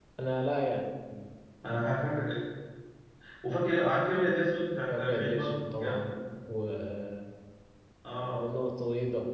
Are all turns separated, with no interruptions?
No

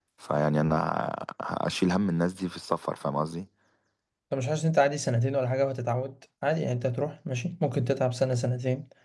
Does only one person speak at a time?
Yes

